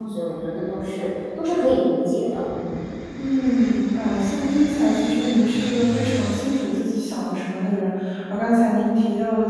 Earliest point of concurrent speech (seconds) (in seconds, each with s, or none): none